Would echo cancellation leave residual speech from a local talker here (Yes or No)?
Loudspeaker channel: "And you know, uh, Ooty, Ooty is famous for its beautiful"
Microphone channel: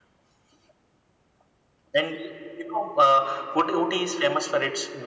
No